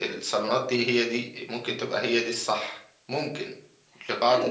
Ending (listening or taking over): taking over